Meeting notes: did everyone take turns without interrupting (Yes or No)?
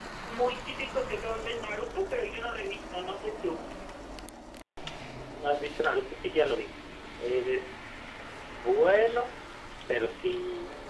Yes